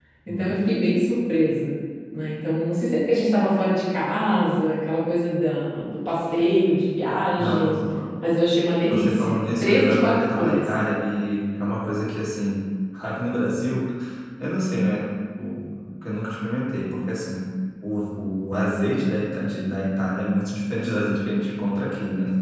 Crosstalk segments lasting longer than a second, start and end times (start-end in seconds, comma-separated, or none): 8.9-10.7